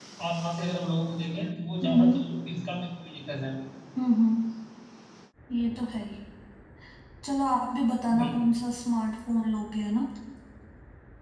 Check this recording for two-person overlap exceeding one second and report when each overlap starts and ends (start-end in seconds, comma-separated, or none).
none